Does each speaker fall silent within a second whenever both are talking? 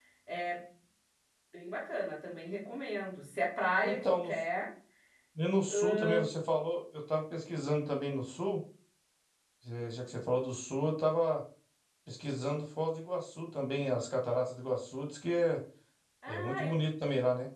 Yes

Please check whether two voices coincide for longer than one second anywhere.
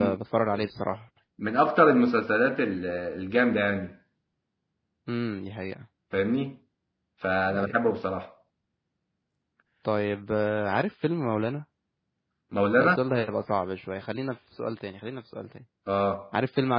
No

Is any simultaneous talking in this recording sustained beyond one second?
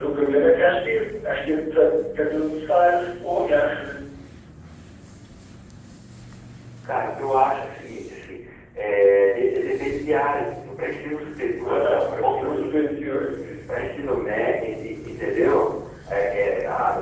Yes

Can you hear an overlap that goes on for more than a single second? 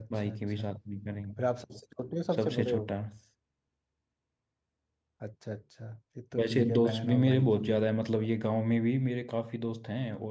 Yes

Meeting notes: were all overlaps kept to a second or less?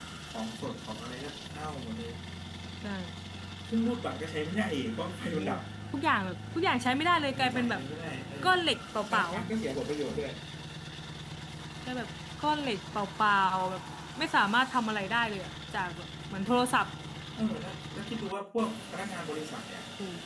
Yes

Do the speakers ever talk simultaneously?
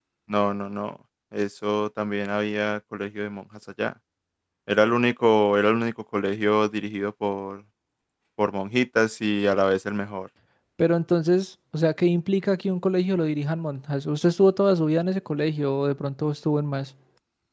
No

